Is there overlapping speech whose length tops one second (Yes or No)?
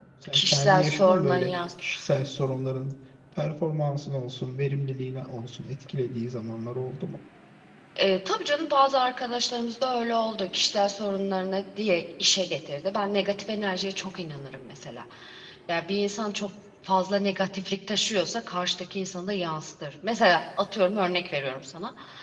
Yes